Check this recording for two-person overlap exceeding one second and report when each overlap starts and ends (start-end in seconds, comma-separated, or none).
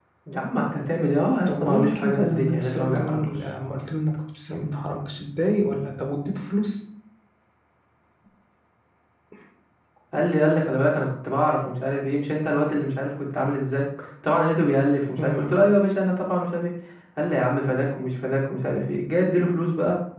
1.5-3.3